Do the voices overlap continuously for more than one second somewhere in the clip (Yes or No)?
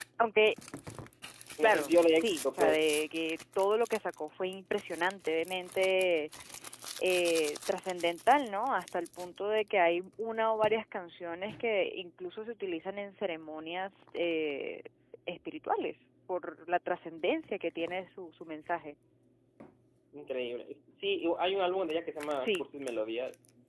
Yes